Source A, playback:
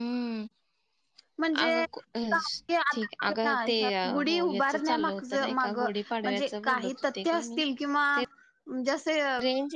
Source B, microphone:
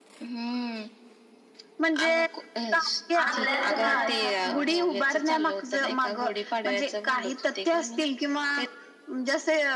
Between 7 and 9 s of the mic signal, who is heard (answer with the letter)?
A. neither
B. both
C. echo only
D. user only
C